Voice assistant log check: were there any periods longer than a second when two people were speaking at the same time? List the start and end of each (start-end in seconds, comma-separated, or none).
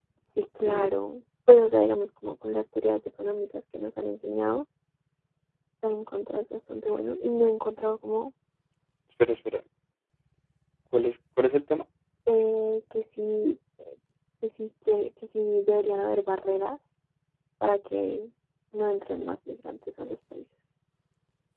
none